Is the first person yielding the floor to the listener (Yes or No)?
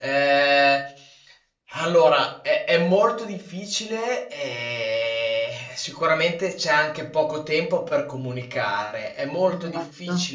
No